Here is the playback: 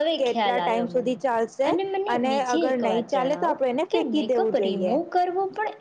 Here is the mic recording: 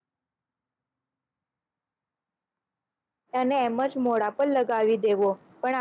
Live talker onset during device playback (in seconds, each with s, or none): 3.4 s